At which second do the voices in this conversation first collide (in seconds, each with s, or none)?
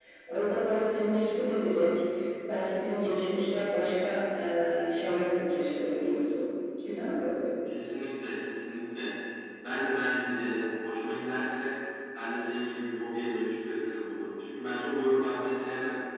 none